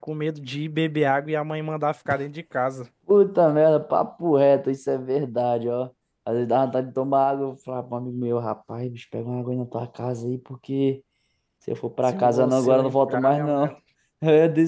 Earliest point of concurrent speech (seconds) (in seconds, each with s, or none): 12.1 s